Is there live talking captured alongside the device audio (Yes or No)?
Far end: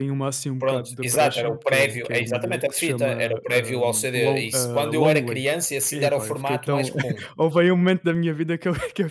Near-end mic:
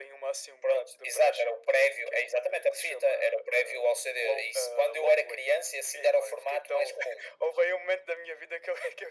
No